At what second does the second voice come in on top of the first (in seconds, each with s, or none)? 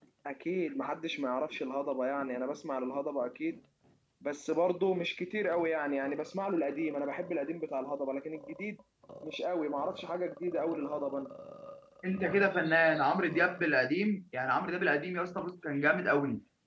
none